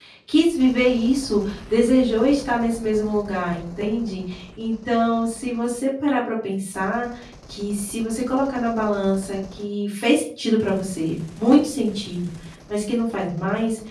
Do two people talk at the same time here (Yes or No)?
No